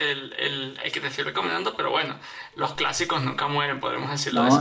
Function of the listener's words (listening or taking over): taking over